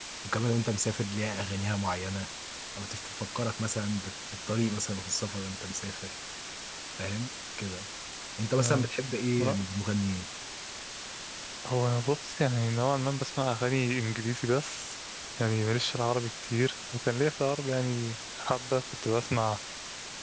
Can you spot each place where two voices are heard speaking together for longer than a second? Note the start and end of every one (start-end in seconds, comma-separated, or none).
none